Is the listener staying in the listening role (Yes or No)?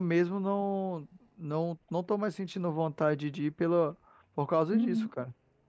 No